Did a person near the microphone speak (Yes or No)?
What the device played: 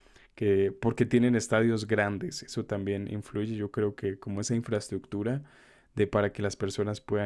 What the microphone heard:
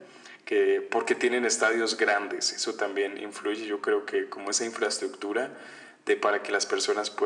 No